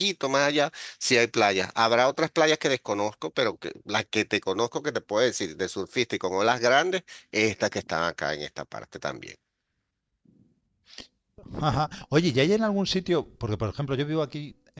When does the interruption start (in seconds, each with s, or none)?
none